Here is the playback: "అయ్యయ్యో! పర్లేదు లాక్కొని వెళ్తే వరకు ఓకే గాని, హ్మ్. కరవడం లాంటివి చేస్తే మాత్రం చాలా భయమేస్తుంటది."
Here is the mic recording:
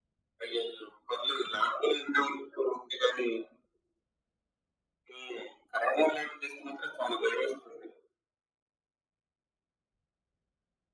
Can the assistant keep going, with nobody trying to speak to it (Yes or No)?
Yes